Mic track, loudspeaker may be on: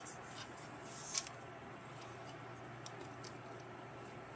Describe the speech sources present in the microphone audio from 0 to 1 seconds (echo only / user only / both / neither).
neither